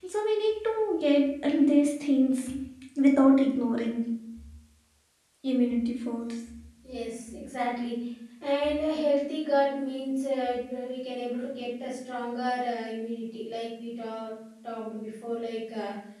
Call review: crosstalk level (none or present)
none